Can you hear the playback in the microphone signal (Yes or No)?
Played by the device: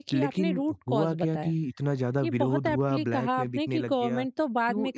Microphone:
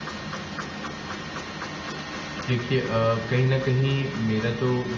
No